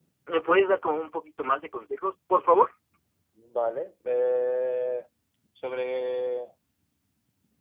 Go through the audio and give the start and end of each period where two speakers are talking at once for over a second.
none

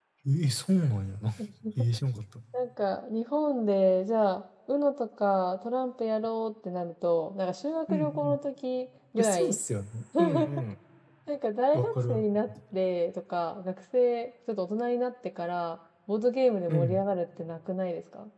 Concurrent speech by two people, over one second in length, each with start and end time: none

